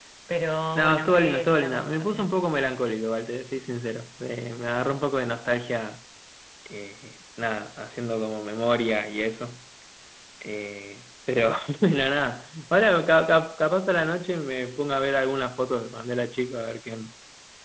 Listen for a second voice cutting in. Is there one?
Yes, from 0.8 s

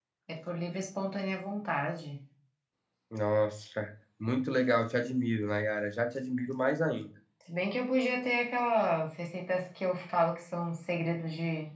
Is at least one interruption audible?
No

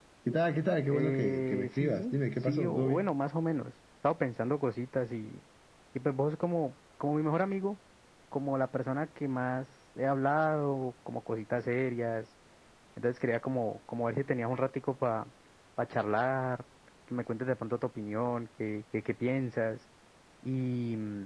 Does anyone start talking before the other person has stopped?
Yes, from 0.9 s

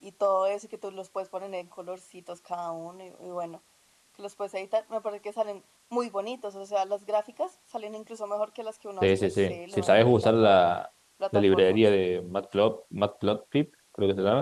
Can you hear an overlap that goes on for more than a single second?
Yes, from 9.0 s

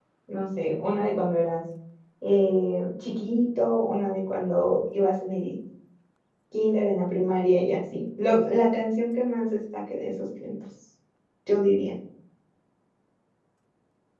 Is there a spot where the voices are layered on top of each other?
No

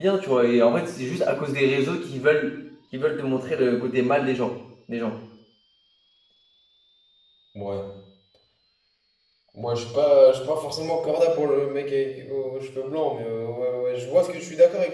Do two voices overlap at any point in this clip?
No

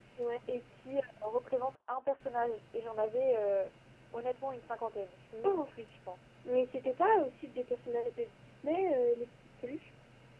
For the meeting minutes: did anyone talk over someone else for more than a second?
No

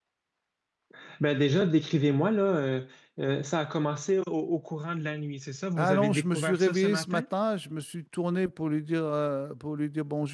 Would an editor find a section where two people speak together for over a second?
Yes, from 5.8 s

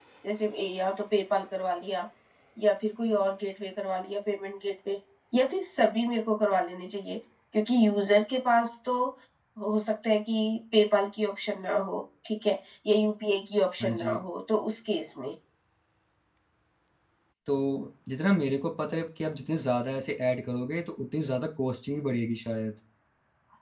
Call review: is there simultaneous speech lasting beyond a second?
No

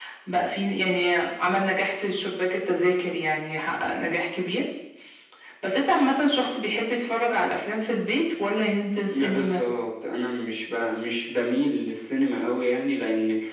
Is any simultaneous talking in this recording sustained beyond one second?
No

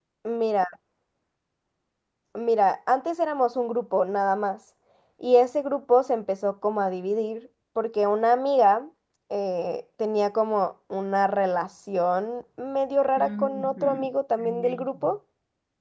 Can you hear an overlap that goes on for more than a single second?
Yes, from 13.2 s

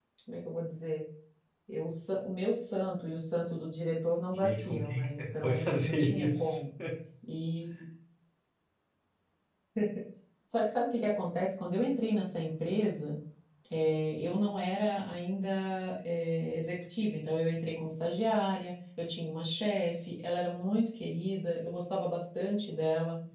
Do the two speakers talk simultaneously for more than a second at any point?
Yes, from 4.3 s

